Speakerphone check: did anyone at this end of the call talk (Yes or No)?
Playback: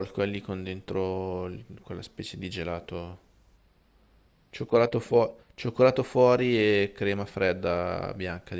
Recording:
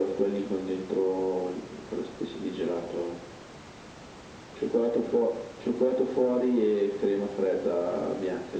No